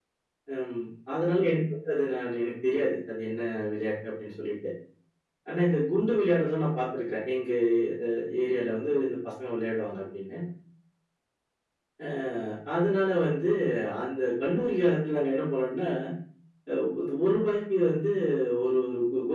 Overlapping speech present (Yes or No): No